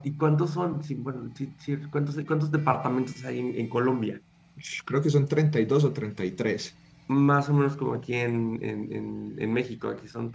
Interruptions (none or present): none